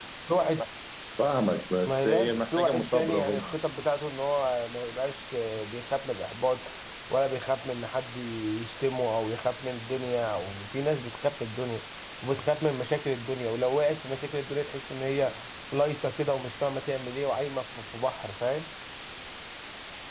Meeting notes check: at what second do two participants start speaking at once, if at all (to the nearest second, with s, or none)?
2 s